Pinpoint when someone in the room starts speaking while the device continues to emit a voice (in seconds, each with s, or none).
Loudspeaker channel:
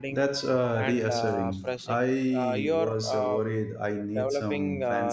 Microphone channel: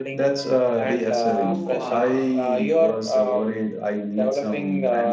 1.3 s